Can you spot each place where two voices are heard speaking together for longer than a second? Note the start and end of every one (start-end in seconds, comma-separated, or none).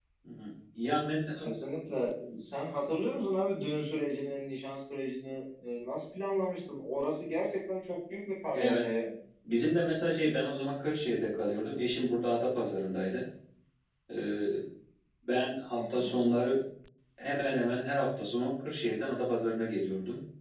none